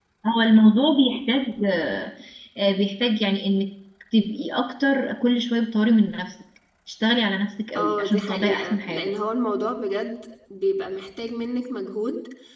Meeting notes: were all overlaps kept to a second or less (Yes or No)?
No